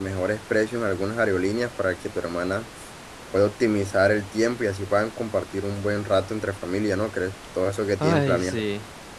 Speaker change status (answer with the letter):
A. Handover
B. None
A